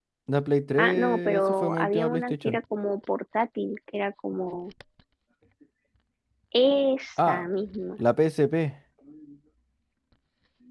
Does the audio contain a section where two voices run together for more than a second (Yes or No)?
Yes